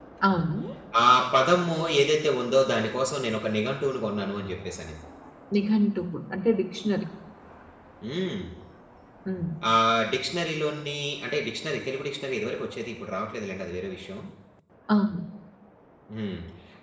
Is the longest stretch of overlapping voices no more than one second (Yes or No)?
Yes